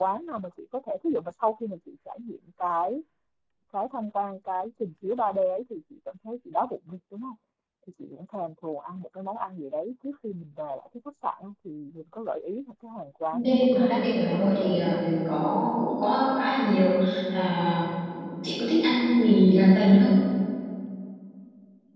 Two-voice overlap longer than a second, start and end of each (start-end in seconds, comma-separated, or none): 13.3-15.0